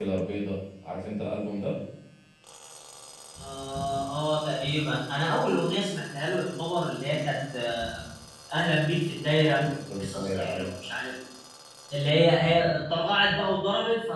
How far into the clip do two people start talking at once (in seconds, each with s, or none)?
9.6 s